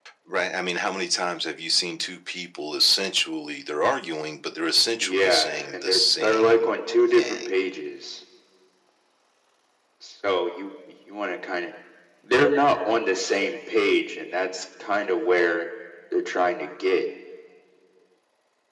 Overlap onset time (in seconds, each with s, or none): 5.0 s